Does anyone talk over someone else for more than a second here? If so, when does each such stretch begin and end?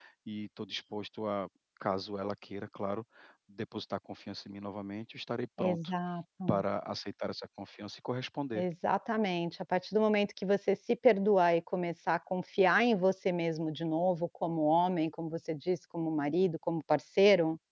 none

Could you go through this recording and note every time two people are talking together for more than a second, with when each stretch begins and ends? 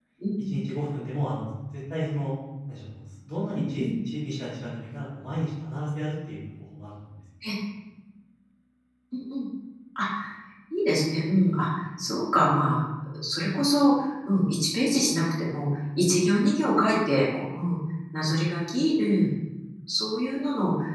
none

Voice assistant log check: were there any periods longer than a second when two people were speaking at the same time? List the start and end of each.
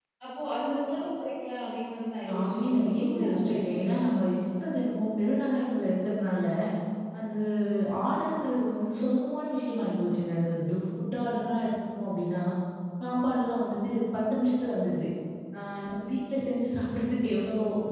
2.3-4.6

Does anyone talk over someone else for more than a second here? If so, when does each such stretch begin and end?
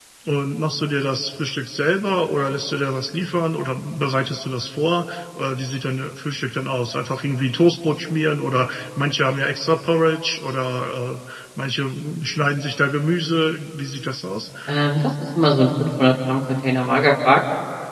none

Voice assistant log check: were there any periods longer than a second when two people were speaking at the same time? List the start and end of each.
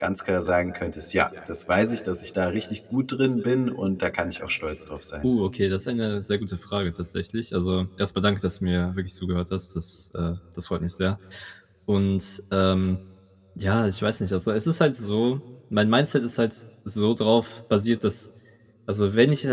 none

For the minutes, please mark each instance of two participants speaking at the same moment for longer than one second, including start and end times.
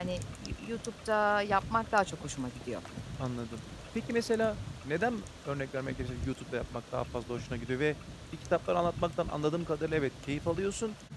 none

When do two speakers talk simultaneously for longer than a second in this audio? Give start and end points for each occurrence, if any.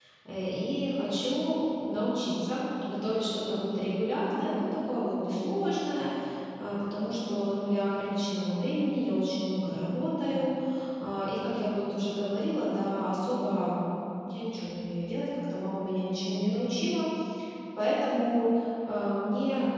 none

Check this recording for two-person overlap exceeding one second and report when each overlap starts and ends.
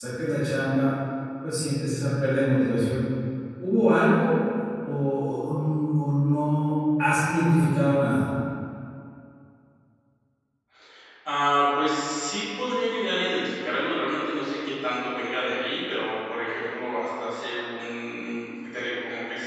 none

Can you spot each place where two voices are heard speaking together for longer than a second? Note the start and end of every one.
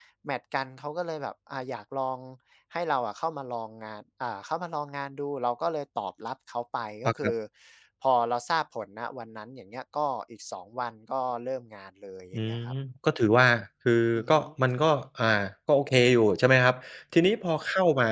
none

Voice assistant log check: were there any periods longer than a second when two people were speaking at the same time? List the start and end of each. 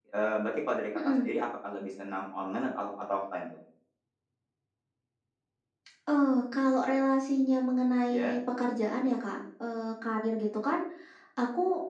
none

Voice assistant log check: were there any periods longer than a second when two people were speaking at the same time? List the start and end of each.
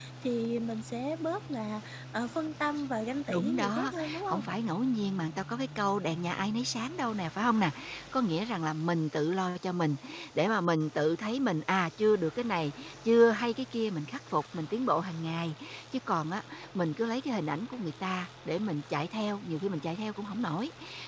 3.3-4.5

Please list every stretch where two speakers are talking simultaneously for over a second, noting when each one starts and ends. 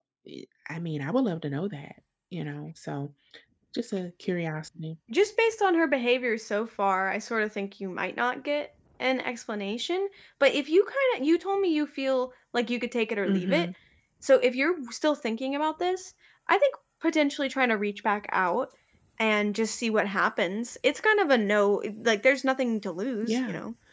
none

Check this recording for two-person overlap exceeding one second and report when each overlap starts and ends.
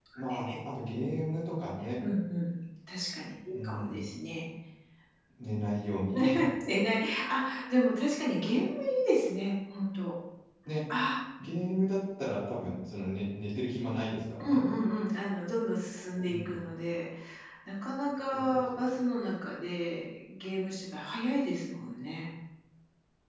none

